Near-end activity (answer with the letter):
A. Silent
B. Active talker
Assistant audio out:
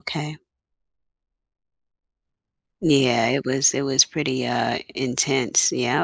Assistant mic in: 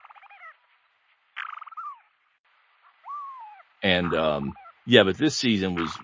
B